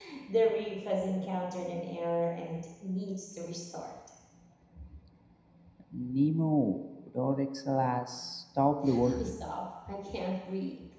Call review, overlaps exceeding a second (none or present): none